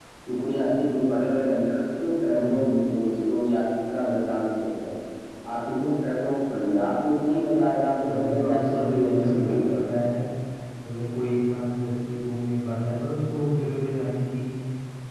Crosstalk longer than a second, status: present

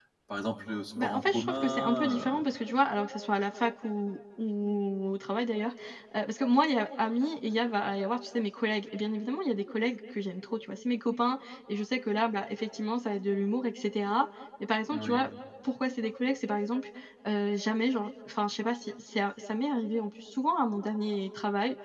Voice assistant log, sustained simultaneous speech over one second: present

